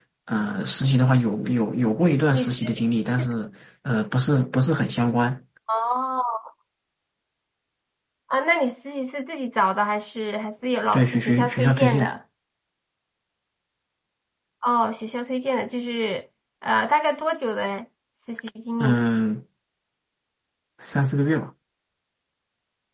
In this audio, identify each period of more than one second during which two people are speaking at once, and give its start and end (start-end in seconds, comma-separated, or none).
10.9-12.1